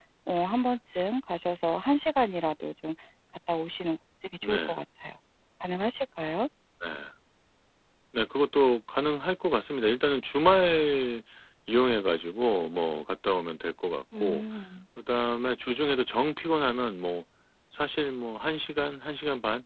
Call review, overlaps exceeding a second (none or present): none